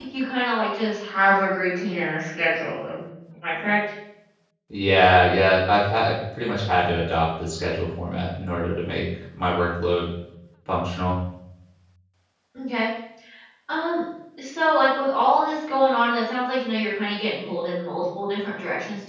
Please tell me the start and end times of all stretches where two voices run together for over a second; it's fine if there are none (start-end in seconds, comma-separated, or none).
none